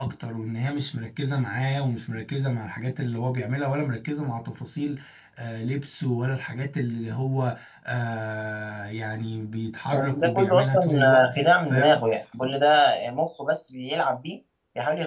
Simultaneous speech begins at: 10 s

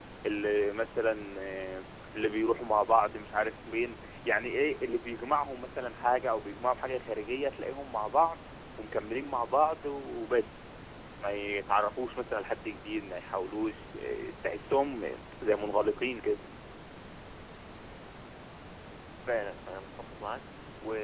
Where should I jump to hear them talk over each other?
none

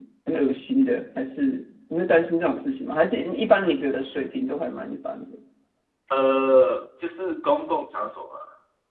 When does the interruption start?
none

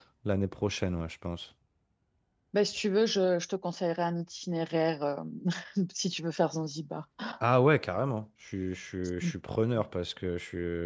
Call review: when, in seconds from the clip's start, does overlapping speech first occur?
none

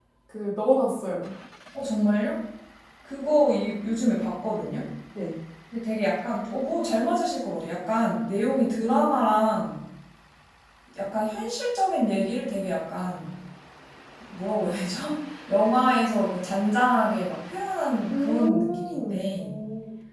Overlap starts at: 18 s

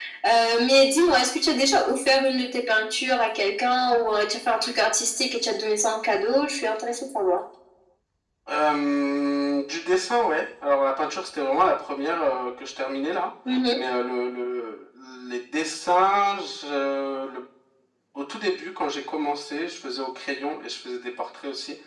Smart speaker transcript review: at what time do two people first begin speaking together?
none

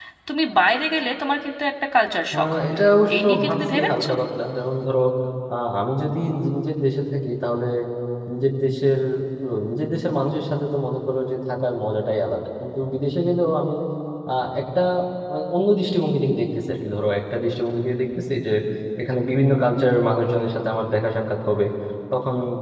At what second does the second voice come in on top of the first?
2 s

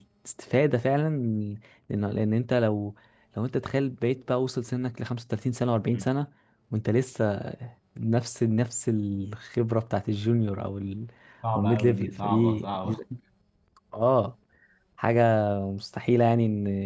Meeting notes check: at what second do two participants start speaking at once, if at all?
12 s

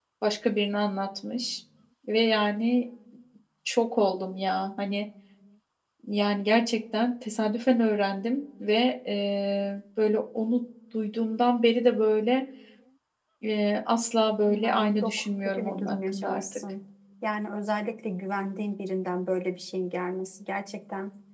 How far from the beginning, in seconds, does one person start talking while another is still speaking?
14 s

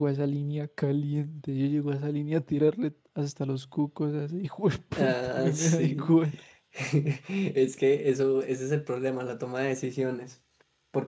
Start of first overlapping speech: 5 s

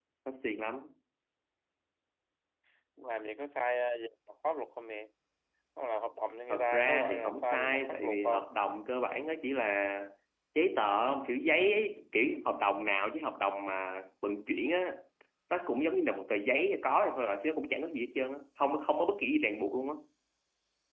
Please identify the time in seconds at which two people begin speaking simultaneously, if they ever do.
6 s

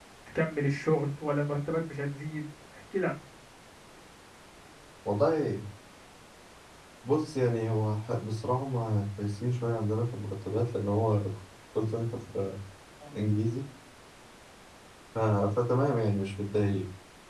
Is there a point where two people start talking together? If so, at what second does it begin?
none

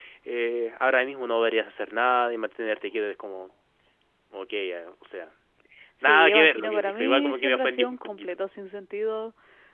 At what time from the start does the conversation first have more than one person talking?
6 s

